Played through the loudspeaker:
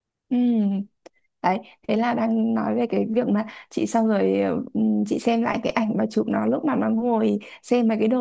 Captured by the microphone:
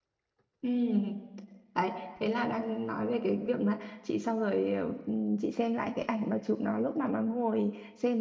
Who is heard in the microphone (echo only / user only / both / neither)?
echo only